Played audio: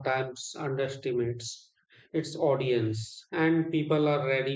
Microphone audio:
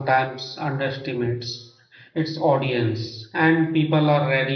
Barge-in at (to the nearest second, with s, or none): none